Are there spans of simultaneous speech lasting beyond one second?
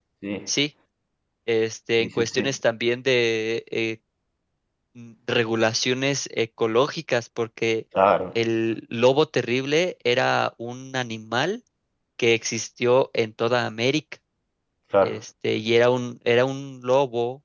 No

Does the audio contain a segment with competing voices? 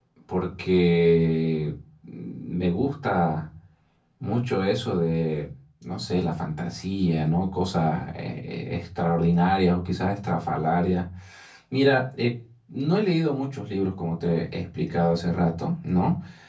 No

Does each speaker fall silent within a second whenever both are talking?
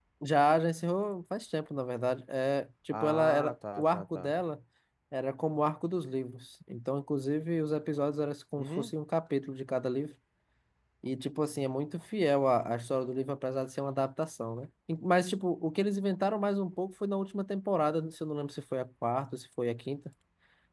No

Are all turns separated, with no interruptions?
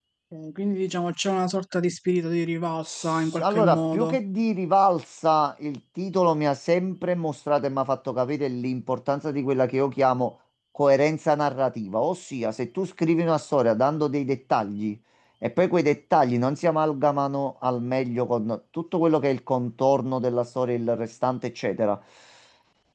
No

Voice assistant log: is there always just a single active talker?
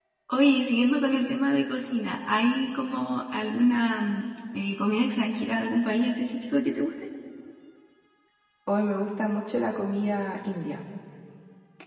Yes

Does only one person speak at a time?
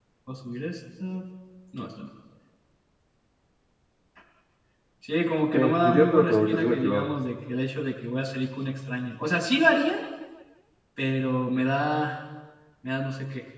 No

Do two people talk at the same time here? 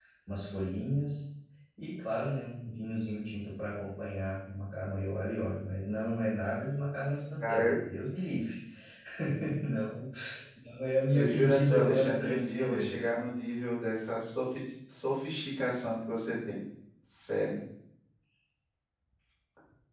Yes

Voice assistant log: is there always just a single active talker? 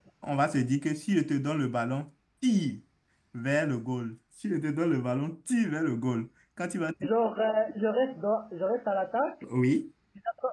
Yes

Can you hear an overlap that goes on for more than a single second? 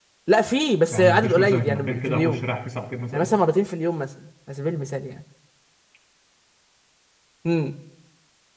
Yes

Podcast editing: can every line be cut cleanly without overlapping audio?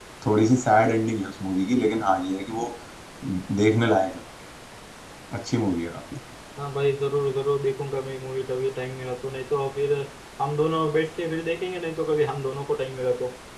Yes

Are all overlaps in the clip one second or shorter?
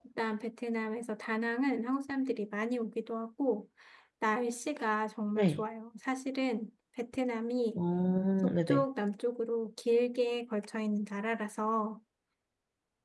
Yes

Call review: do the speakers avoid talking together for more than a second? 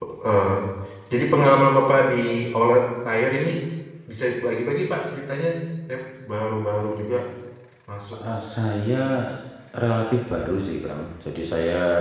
Yes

